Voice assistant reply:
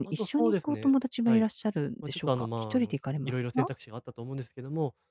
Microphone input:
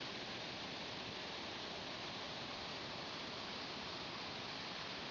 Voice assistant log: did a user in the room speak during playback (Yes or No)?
No